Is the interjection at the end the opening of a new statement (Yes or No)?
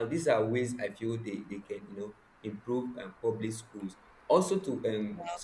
No